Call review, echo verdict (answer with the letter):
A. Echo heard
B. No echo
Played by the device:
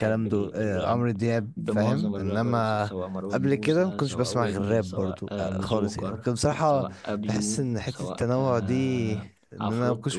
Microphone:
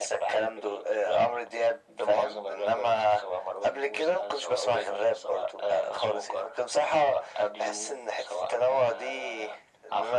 A